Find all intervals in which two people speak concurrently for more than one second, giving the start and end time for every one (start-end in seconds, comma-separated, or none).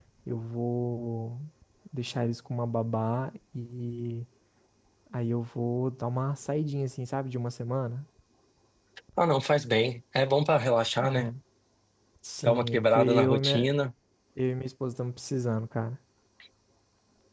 12.4-13.7